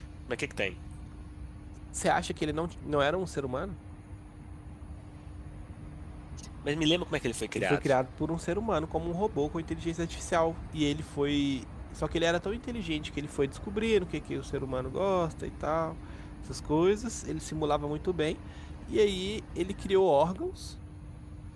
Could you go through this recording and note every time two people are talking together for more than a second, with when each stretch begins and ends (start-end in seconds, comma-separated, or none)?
none